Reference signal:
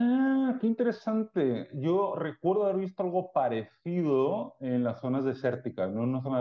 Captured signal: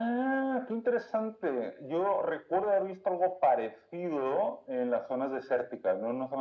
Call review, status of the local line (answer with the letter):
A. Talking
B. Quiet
B